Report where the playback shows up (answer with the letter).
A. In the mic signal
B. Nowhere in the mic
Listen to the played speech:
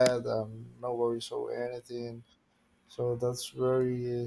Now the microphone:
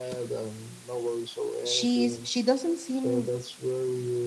A